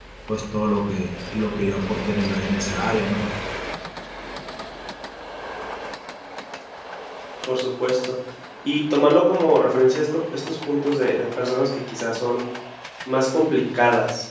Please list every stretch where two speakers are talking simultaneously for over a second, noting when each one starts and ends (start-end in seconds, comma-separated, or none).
none